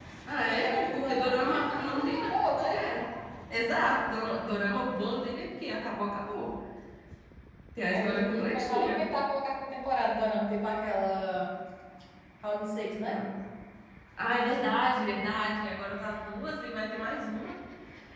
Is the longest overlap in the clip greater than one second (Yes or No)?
Yes